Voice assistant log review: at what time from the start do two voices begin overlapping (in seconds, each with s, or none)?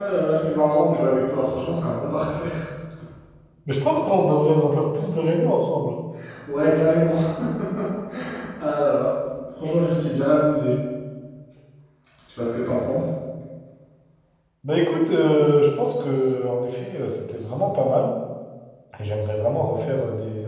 none